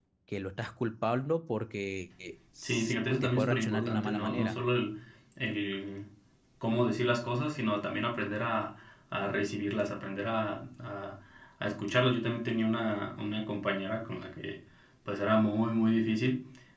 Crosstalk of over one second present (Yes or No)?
Yes